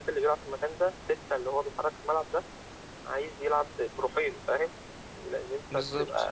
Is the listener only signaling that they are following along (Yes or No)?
Yes